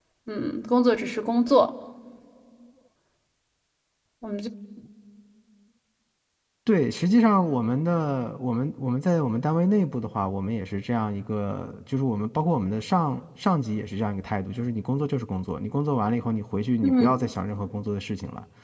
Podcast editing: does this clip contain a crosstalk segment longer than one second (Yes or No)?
No